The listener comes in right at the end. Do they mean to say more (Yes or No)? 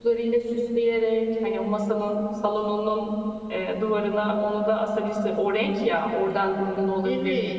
Yes